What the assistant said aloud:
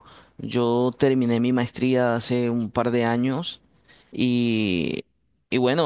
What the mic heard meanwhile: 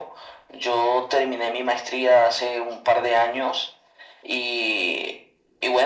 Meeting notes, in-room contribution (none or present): none